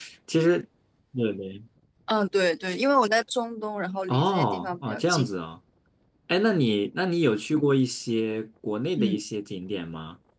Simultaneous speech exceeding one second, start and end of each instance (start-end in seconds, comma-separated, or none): 4.1-5.3